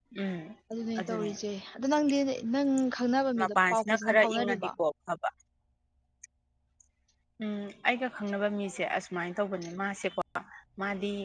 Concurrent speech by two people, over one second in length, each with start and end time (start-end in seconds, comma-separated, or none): 3.4-4.7